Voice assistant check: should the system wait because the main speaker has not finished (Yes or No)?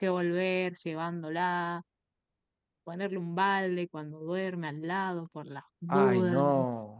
No